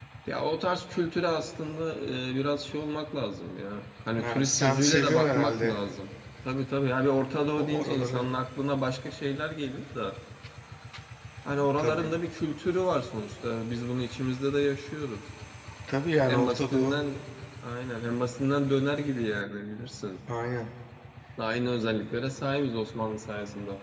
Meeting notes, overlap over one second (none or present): present